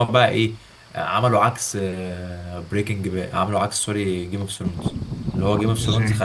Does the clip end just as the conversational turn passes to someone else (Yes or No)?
No